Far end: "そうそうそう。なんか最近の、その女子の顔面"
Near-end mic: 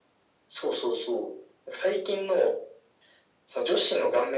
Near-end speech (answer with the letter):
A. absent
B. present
A